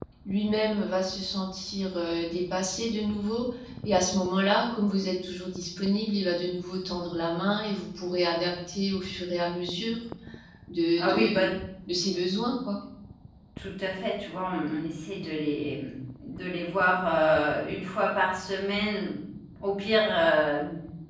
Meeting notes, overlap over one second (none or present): none